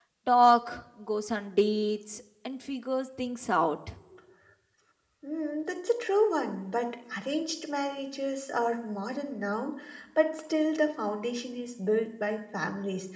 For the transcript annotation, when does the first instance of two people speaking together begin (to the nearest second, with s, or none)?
none